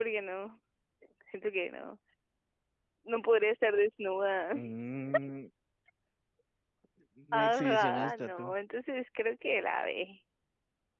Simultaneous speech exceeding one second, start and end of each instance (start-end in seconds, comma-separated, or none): 7.3-8.5